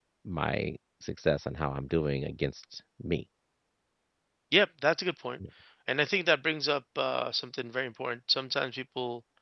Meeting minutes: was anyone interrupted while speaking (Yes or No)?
No